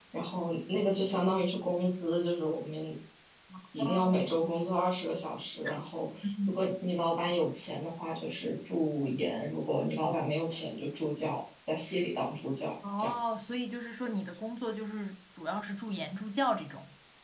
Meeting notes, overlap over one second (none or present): none